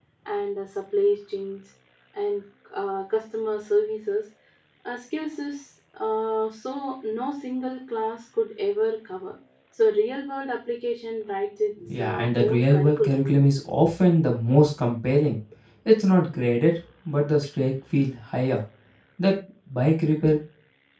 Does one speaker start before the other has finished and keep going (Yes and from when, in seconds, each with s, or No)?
Yes, from 11.8 s